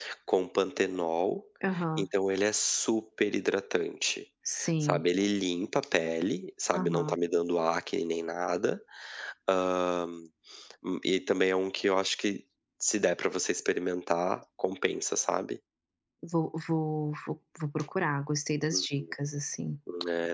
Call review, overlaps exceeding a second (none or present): none